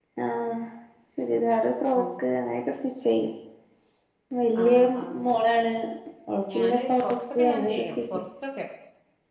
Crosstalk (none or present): present